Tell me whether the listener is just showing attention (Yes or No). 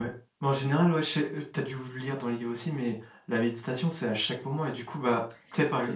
Yes